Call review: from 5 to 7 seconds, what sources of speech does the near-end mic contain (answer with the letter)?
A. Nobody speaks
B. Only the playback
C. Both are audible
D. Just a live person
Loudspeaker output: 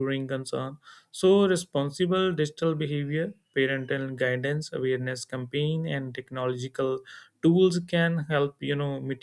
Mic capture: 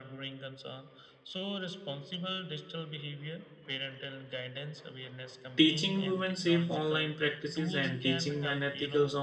C